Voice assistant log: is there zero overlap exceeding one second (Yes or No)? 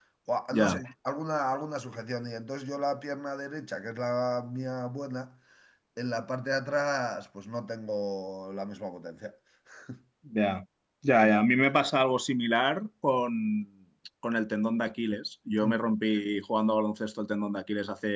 Yes